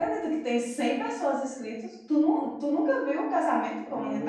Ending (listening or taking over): taking over